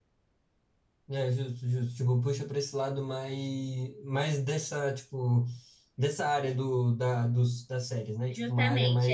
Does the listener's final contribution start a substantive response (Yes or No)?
Yes